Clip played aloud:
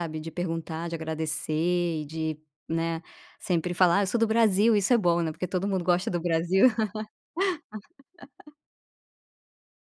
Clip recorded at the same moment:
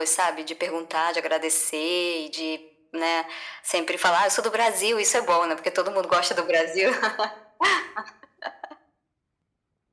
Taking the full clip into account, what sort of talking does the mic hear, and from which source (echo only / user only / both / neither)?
echo only